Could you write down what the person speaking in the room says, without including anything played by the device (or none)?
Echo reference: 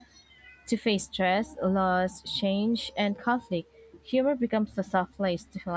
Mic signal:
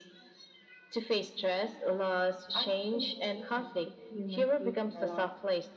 Honest communication keeps humor safe and alive.